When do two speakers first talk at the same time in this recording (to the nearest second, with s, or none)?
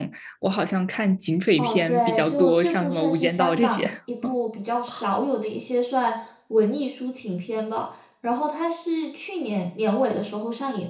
2 s